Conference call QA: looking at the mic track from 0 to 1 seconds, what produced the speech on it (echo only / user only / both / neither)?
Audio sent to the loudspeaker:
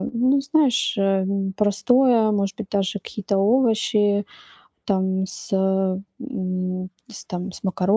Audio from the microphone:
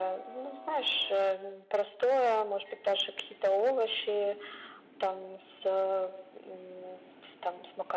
echo only